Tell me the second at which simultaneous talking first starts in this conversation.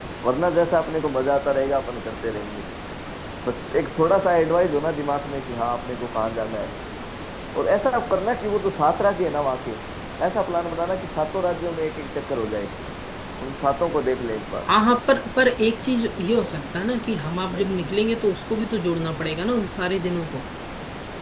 none

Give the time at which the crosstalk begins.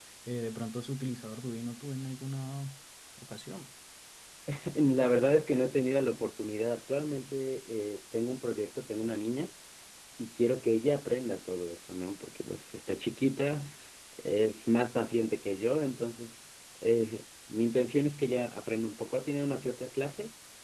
none

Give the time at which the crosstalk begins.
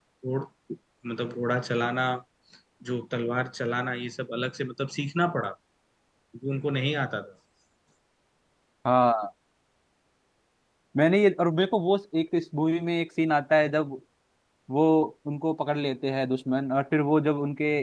none

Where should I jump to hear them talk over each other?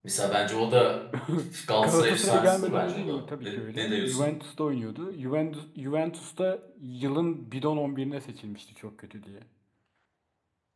1.8 s

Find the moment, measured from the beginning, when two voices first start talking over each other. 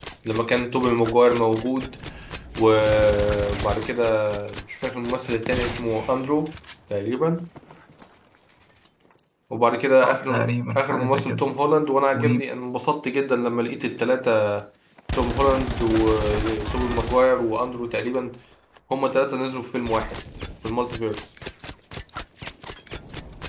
10.0 s

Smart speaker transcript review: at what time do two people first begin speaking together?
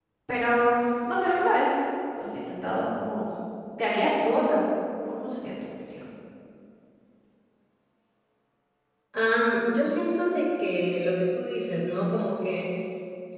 none

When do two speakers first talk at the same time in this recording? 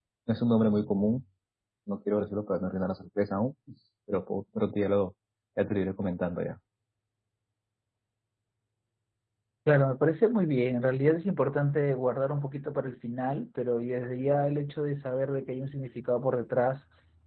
none

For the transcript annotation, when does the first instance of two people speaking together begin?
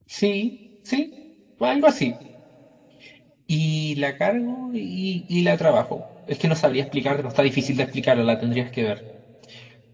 none

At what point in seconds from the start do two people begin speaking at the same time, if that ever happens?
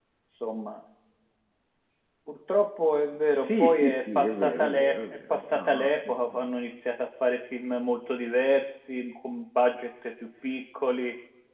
3.4 s

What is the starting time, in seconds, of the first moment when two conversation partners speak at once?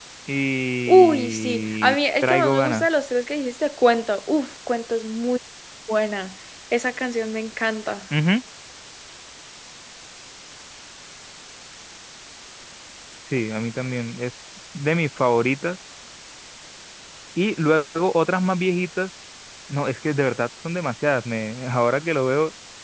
0.9 s

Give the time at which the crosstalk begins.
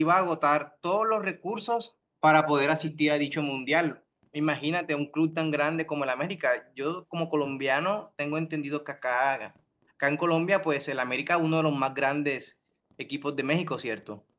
none

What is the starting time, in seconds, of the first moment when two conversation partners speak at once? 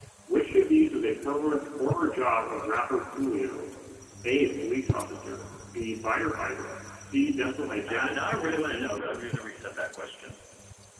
7.9 s

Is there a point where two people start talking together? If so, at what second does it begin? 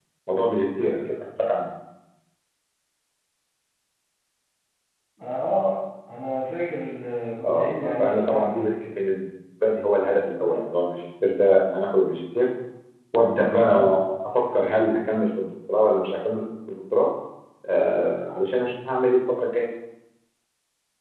7.4 s

